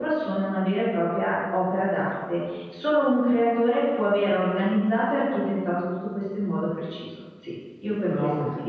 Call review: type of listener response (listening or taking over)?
taking over